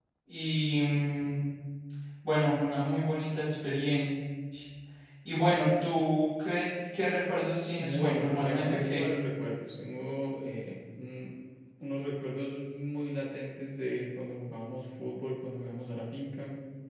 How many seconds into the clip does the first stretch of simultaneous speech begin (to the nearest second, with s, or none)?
8 s